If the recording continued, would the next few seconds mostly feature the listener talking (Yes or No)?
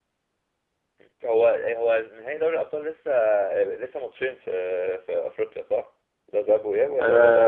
Yes